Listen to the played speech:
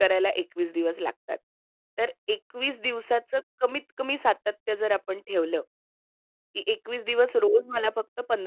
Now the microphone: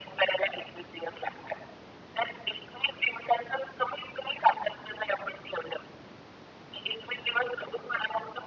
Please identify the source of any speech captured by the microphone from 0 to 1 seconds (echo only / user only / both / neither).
echo only